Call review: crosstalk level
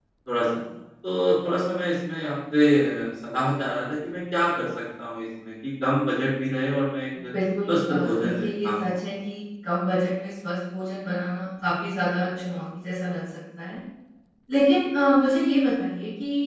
present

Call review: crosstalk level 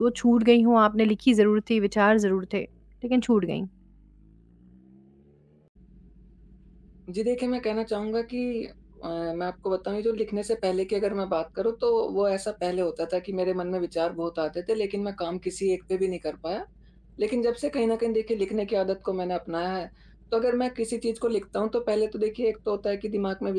none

